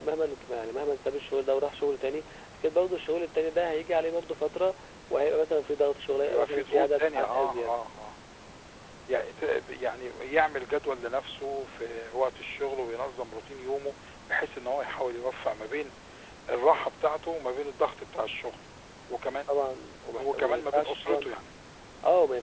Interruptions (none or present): present